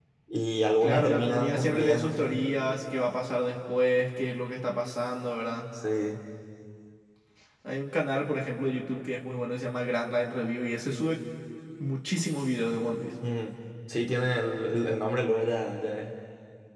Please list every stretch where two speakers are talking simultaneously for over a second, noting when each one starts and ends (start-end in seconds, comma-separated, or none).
0.8-2.4